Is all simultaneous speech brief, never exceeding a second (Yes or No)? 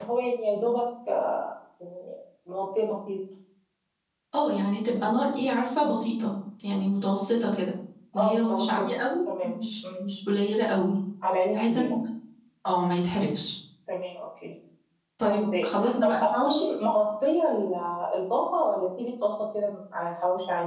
No